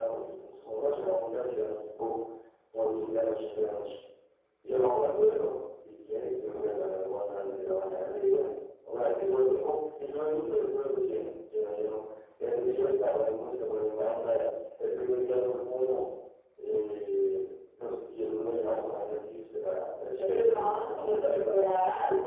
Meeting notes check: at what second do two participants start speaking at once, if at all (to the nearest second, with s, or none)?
20 s